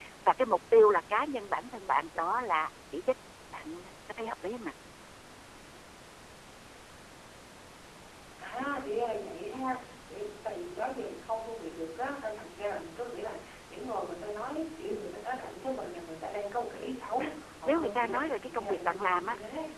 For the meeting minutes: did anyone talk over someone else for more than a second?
Yes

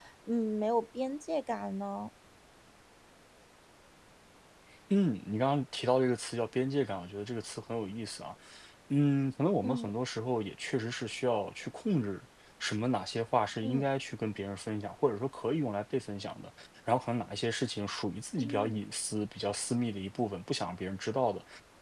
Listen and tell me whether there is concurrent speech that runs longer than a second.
No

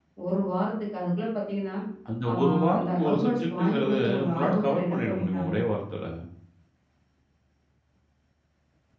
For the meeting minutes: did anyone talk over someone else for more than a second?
Yes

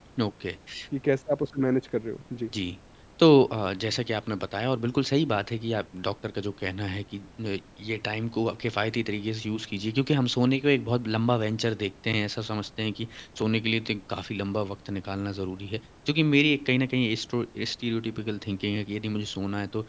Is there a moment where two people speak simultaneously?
No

